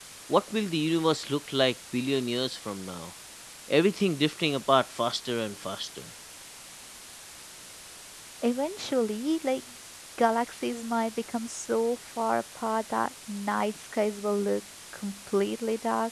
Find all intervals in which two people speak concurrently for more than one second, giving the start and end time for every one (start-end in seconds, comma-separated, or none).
none